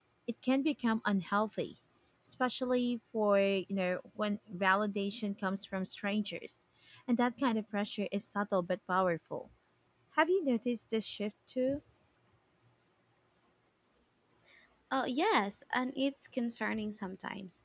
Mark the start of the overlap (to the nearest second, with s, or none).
none